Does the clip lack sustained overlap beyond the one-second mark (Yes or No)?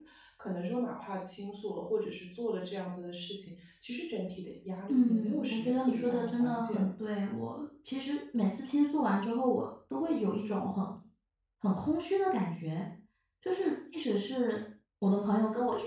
No